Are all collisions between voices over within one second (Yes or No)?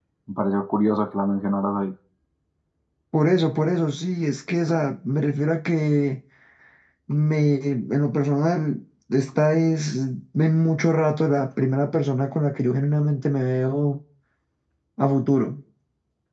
Yes